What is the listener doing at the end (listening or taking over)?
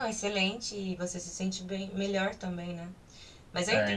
taking over